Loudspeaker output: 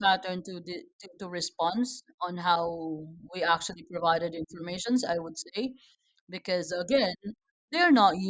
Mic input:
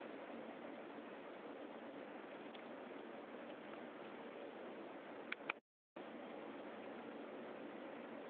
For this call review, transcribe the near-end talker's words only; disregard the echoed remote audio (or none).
none